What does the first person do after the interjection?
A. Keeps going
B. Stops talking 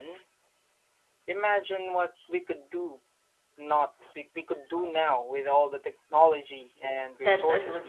B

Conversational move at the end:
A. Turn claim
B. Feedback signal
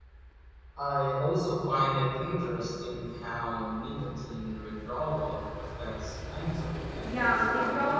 A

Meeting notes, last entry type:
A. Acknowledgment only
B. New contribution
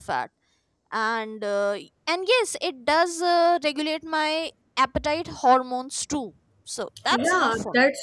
B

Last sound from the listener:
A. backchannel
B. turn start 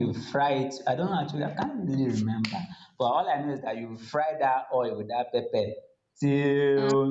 A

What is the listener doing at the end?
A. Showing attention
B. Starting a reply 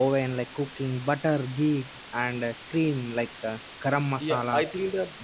B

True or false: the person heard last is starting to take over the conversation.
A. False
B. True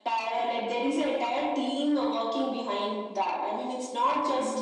A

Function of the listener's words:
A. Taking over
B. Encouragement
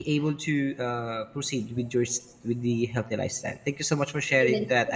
A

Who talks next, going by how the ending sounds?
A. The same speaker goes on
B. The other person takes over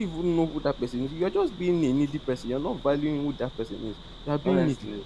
A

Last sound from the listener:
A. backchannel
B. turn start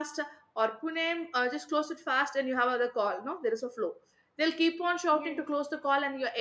A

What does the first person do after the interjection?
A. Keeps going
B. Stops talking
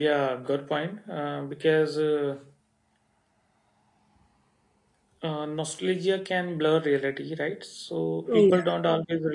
A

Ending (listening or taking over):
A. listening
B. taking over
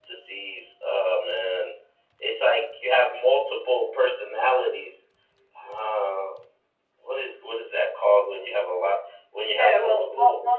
B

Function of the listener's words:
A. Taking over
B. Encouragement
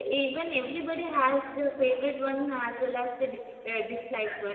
B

